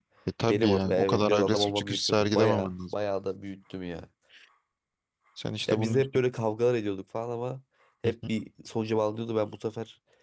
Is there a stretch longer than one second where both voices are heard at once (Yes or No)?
Yes